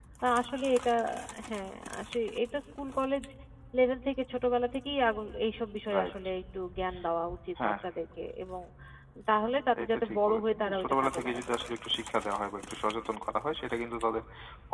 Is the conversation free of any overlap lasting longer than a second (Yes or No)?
No